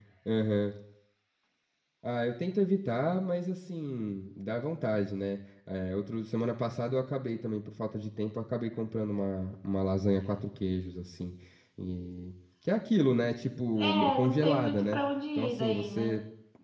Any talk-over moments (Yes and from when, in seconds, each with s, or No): Yes, from 13.8 s